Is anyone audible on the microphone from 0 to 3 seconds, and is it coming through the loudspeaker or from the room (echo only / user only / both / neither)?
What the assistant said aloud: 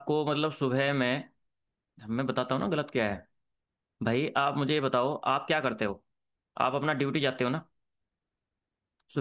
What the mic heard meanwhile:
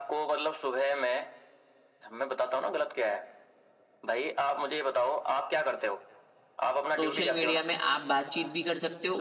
echo only